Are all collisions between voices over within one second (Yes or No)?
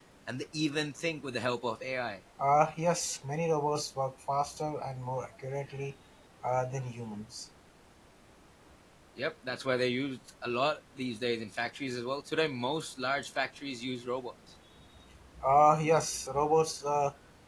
Yes